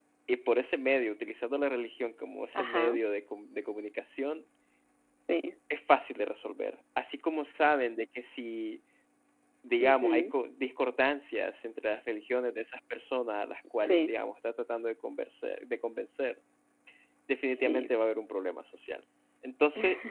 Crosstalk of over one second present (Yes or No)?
No